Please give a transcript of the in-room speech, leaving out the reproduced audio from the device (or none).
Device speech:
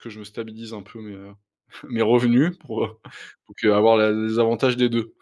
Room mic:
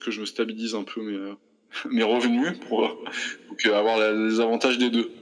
none